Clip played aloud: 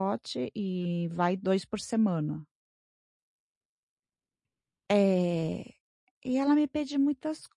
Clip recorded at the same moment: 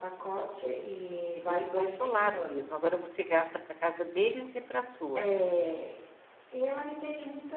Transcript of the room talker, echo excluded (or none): Fica descontrolado mesmo. Agora você gasta para casa deles e para a sua.